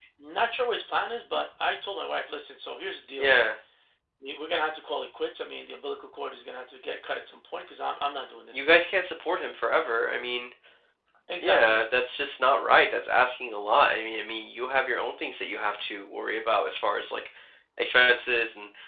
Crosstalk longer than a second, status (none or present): none